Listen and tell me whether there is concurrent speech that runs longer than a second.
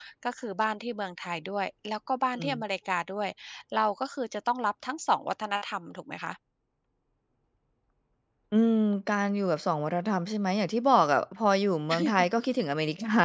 No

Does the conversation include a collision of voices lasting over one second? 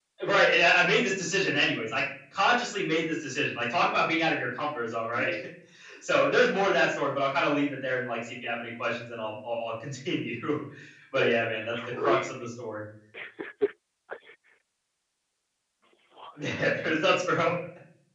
Yes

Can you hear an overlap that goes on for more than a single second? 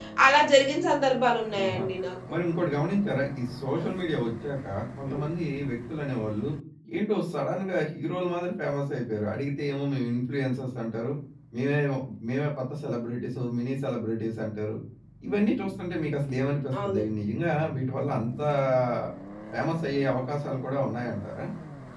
No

